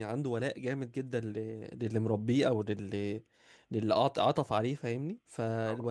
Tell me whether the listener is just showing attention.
Yes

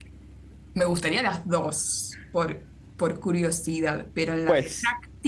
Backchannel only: No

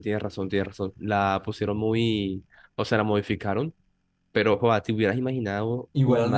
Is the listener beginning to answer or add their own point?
Yes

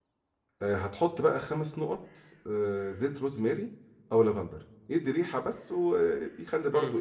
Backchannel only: No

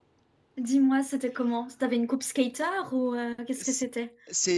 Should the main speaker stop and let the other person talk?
Yes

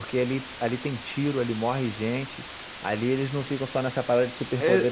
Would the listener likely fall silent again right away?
No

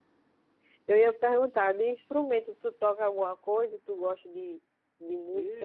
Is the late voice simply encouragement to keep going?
No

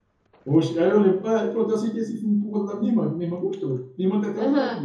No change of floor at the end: No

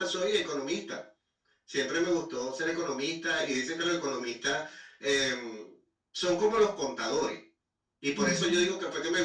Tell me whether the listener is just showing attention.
Yes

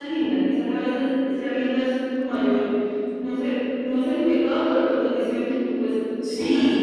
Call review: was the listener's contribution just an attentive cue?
No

